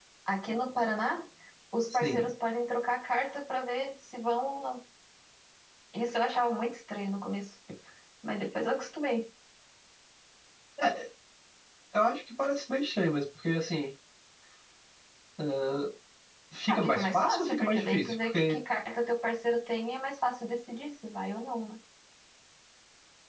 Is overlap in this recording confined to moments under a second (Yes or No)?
No